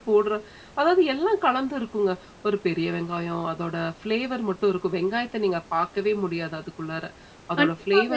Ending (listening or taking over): taking over